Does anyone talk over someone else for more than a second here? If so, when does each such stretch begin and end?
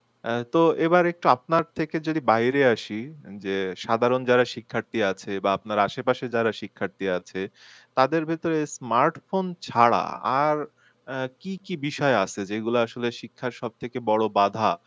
none

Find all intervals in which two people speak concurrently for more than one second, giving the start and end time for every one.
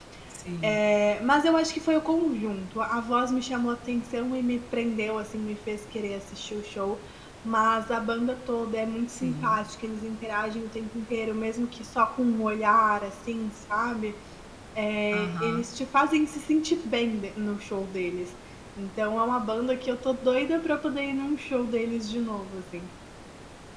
none

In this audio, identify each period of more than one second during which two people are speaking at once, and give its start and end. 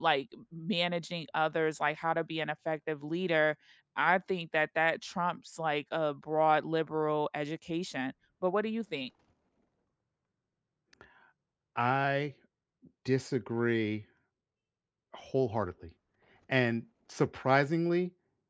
none

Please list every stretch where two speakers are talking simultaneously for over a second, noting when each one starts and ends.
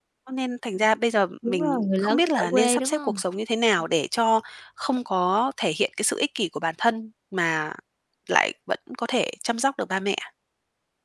1.5-3.2

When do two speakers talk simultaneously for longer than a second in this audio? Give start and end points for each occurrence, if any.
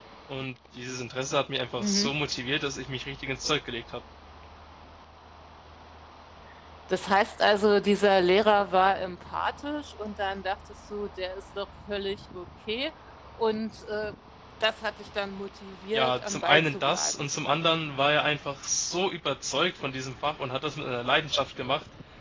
15.9-17.3

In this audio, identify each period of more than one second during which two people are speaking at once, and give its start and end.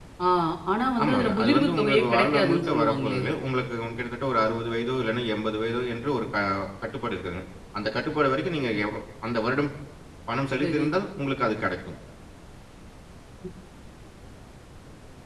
1.0-3.2

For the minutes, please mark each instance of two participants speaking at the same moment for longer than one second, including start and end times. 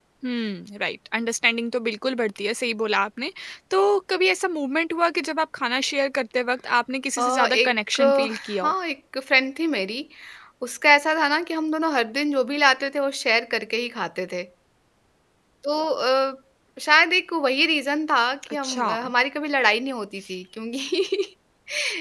7.2-8.7

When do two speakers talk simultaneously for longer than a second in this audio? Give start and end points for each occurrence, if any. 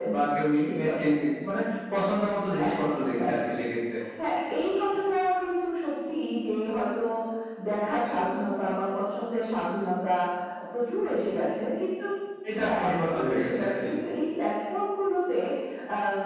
12.6-13.9

